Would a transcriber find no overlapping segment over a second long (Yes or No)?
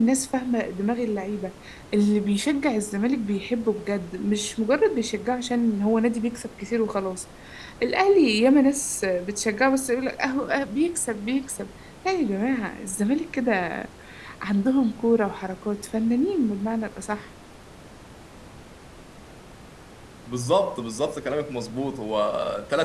Yes